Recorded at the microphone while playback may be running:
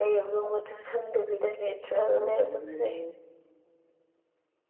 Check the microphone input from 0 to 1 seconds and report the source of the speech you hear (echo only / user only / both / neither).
echo only